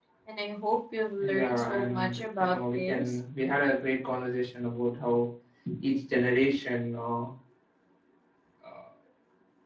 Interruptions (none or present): present